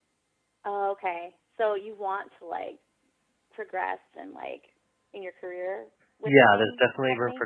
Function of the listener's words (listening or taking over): taking over